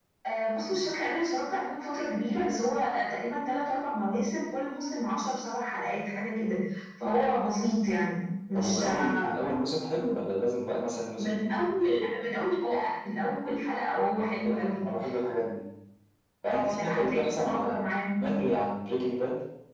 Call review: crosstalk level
present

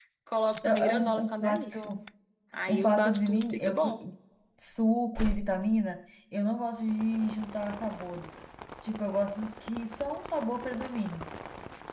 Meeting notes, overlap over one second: present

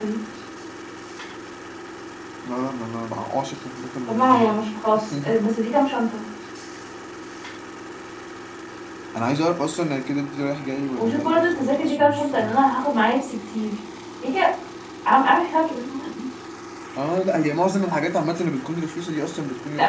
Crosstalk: present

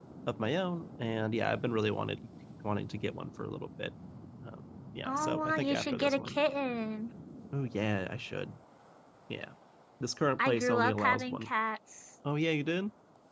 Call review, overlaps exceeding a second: present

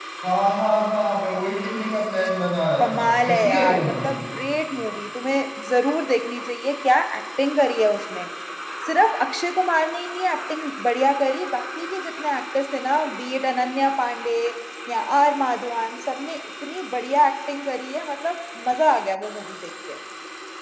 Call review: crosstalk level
present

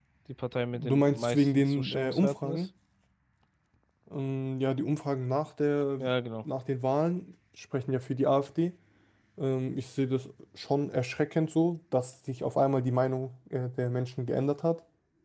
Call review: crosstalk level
present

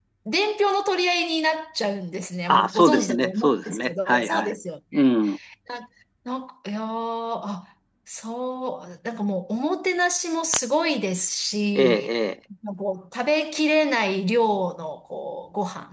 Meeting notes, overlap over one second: present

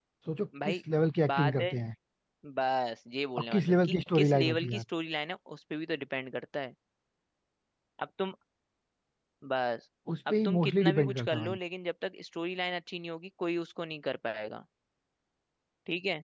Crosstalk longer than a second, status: present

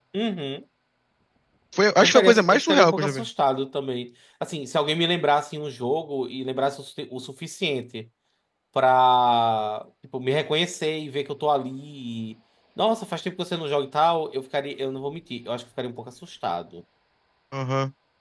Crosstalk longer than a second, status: present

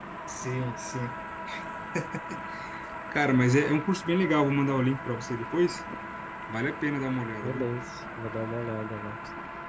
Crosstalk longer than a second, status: none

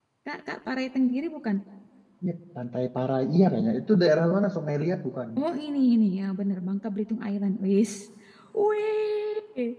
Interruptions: none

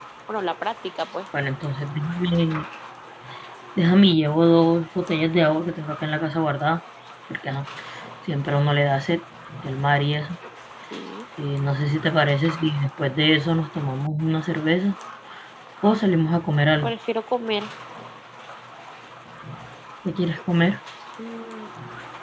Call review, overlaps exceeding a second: none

